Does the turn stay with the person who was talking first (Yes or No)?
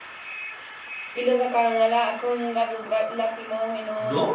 No